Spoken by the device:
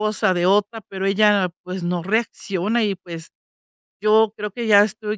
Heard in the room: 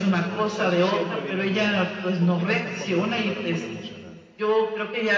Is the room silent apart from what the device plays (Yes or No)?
No